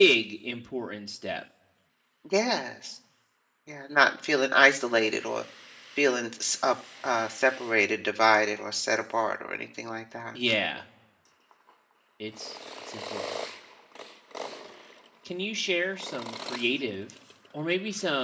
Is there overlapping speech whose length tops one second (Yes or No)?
No